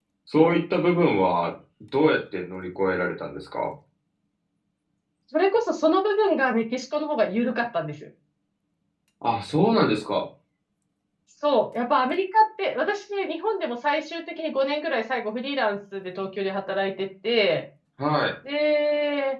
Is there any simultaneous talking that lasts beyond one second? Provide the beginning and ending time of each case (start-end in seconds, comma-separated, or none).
none